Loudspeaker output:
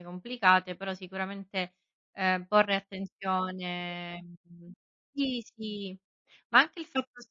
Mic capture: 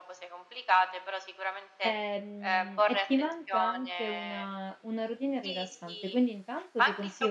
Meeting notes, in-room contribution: present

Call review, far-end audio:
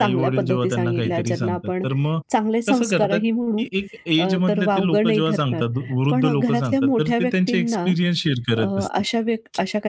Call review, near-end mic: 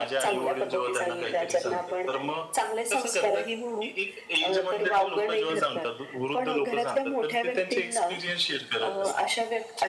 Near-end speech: none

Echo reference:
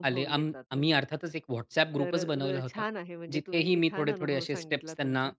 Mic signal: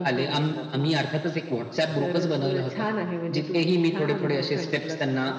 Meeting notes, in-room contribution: none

